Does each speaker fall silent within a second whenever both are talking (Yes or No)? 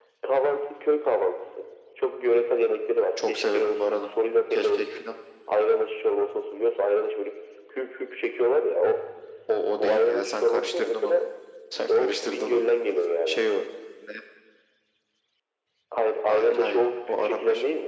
No